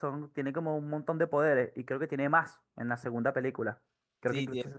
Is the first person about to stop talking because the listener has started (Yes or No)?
Yes